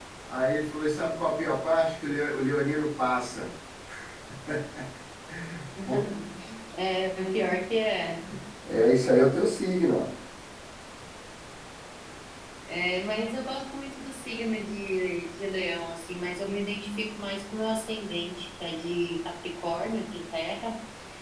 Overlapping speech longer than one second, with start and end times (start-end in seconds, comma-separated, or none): none